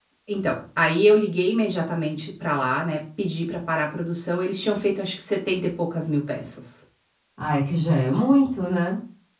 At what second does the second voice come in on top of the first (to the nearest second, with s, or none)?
none